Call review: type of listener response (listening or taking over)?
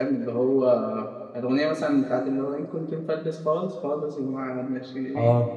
taking over